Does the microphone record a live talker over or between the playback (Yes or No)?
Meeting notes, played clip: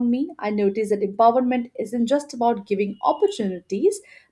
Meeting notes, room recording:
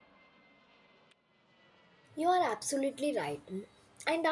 Yes